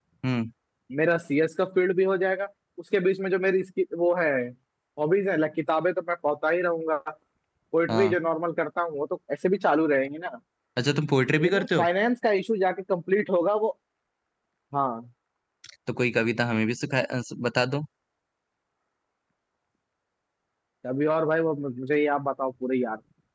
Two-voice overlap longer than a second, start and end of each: none

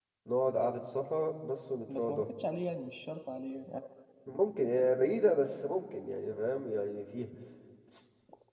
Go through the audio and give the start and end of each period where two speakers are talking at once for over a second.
none

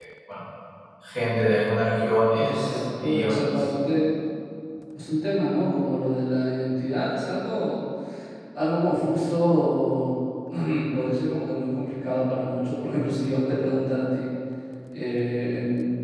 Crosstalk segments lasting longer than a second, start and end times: 2.3-3.6

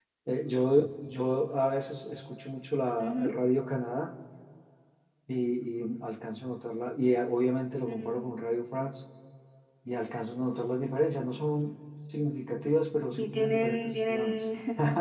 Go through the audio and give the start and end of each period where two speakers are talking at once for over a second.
13.1-14.4

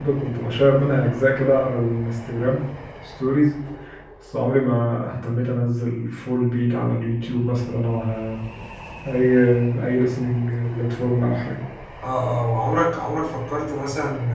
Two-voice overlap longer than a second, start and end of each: none

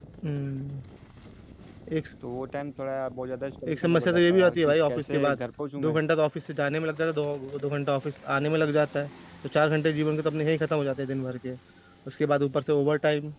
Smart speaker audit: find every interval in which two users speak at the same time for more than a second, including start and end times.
3.7-5.4

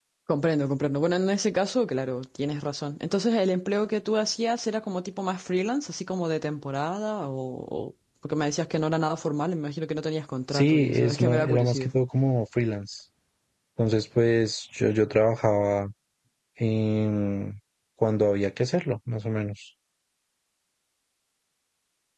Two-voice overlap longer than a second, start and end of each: 10.5-11.9

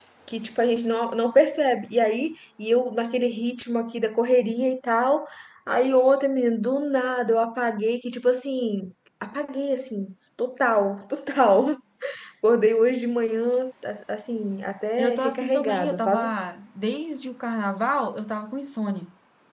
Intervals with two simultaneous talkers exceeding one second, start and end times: 15.0-16.3

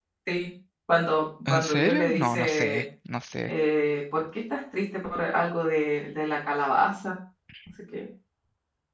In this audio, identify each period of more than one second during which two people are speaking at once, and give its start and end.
1.5-2.8

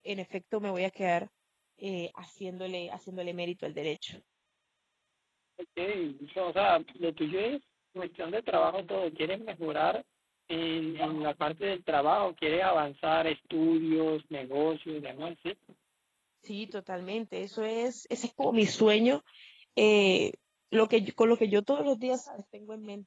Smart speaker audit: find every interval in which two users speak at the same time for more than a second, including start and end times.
none

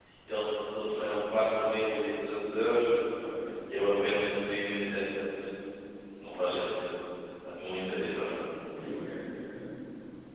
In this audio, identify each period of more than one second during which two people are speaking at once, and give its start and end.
none

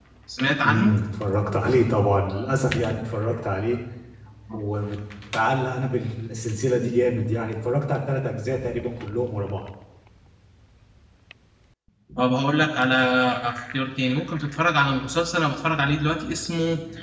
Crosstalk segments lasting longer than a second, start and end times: none

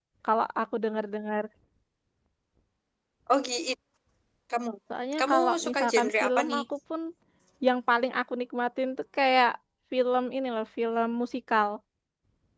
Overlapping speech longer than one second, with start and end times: 5.2-6.6

